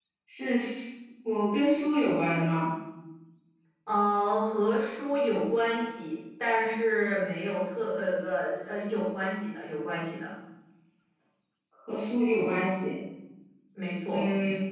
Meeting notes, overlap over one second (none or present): none